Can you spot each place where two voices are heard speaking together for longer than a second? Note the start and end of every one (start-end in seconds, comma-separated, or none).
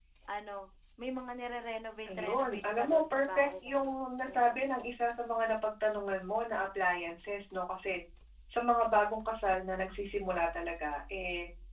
2.1-4.7